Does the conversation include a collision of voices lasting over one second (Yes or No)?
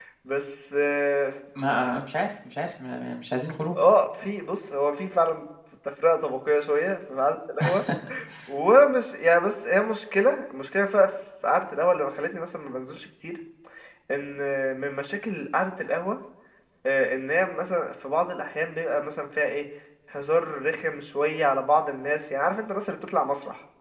No